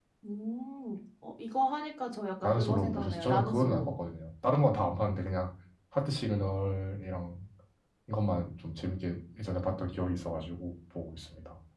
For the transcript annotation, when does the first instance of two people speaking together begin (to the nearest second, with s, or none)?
2 s